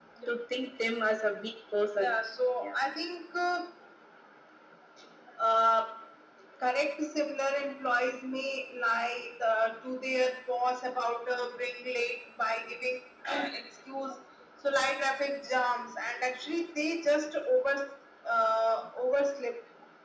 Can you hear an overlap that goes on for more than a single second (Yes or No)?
No